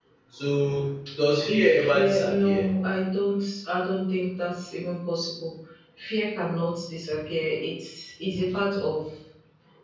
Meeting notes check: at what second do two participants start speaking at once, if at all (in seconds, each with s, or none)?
1.4 s